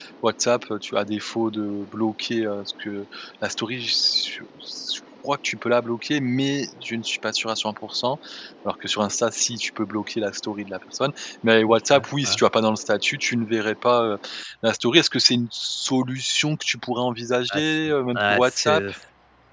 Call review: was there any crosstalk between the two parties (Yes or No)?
Yes